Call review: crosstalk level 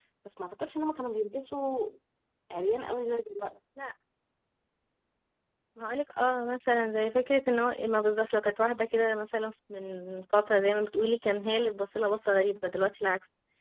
none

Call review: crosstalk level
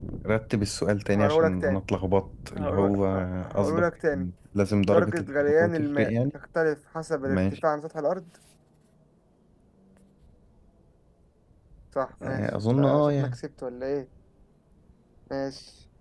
present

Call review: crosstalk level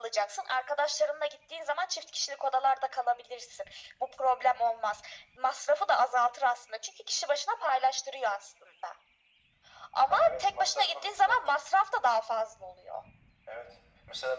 present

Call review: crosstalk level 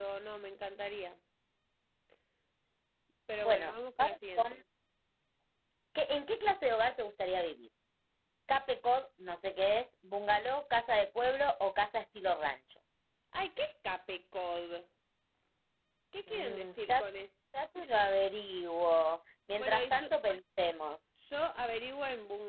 present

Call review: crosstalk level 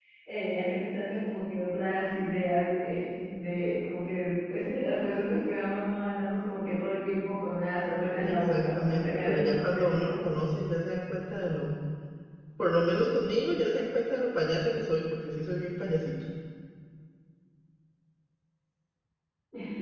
present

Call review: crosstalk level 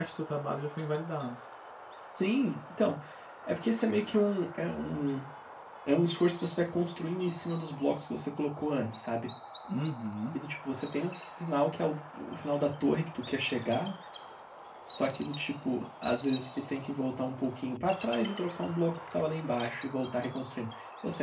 none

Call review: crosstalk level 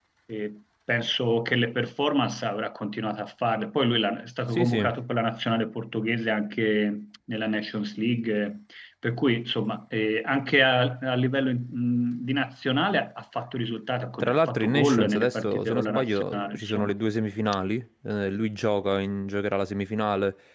present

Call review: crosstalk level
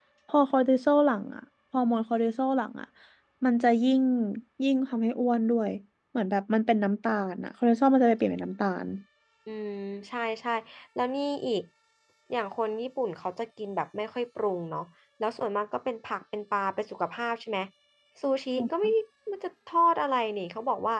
none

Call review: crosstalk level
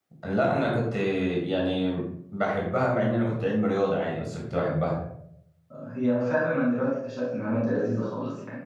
none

